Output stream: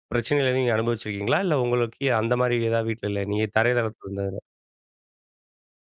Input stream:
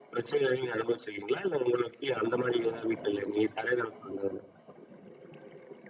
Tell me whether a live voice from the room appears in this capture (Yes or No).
No